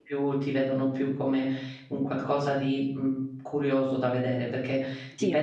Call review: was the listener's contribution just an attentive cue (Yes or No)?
Yes